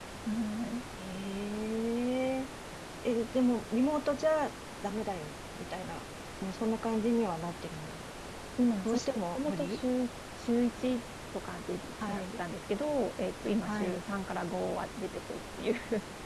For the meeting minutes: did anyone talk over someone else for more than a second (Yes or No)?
No